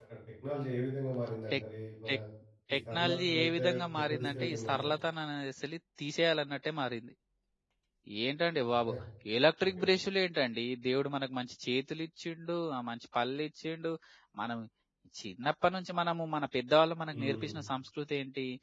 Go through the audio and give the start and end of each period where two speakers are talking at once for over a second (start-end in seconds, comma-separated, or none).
2.7-4.8